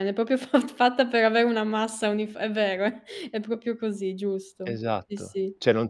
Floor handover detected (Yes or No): Yes